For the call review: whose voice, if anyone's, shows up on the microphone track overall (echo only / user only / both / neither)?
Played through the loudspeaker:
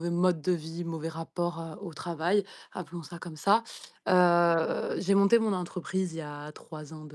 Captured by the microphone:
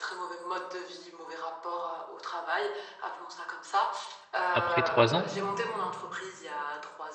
both